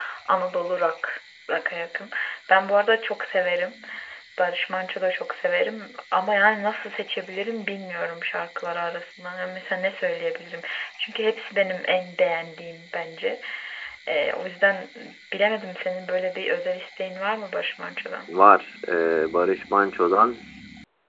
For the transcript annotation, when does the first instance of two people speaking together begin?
none

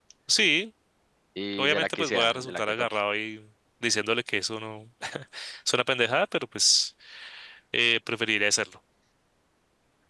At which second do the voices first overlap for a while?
1.6 s

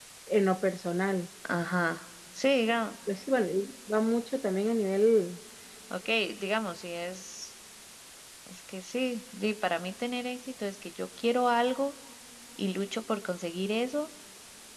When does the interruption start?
none

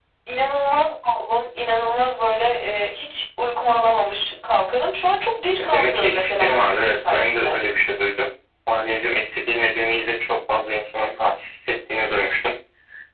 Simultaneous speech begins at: 5.6 s

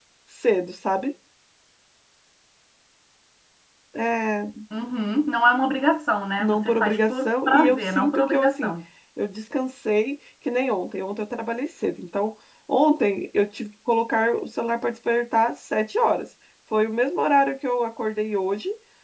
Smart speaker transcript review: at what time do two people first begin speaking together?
6.4 s

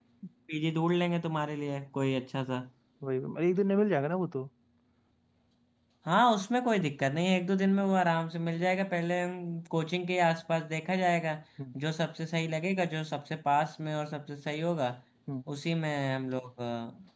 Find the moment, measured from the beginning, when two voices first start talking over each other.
none

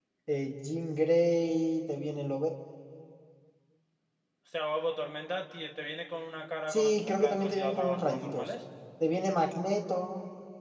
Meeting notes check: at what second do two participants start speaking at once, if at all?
6.7 s

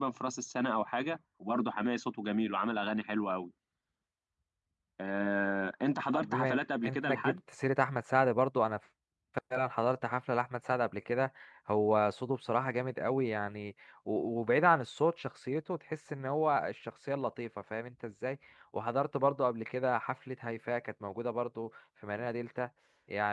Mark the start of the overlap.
6.1 s

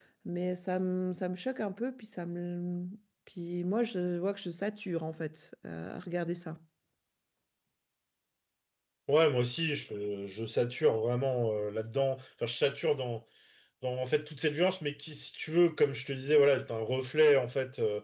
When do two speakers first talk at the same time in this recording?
none

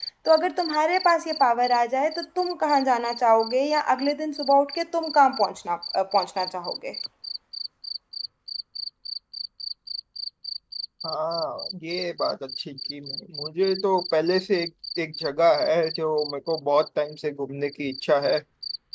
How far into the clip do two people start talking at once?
none

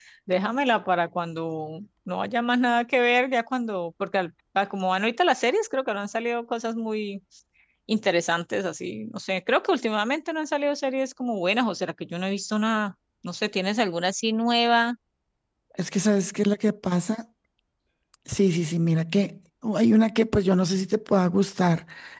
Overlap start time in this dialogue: none

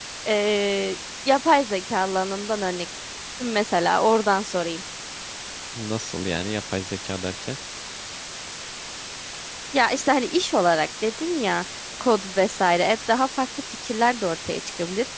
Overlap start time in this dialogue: none

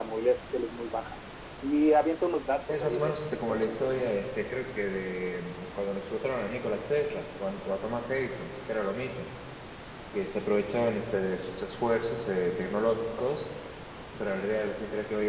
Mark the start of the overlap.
2.7 s

